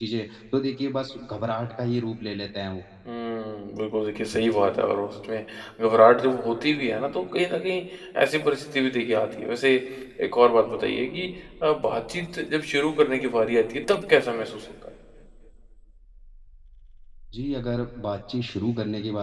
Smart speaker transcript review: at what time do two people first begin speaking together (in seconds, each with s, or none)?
none